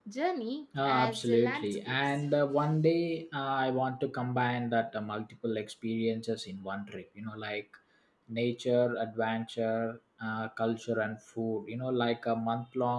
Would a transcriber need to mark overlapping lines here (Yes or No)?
Yes